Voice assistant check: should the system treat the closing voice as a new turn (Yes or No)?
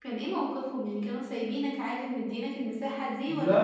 Yes